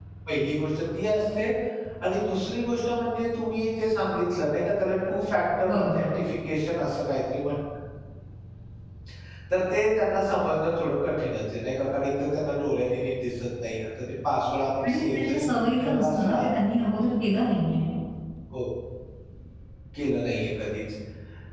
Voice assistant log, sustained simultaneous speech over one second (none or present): present